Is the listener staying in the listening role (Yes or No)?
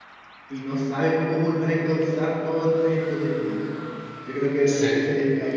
Yes